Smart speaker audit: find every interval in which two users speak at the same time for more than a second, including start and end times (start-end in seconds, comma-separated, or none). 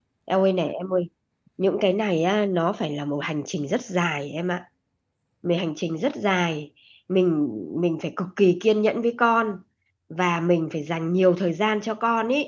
none